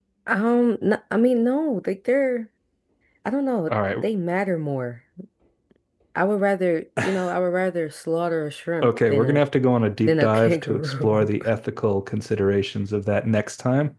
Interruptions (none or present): present